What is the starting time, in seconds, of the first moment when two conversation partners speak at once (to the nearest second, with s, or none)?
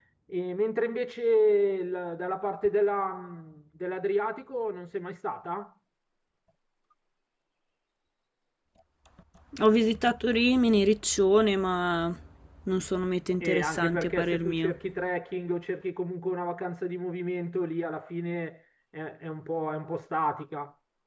13 s